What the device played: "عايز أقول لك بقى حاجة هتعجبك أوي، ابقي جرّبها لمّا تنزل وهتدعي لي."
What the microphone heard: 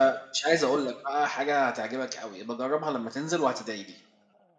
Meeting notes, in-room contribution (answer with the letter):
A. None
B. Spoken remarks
A